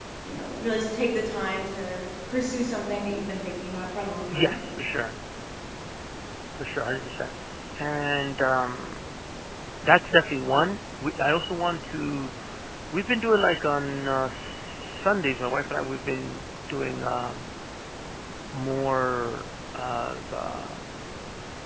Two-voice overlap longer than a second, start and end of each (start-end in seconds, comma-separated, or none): none